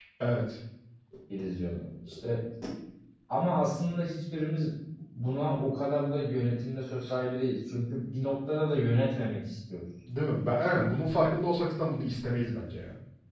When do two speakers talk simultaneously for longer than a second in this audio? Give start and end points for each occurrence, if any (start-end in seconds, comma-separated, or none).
none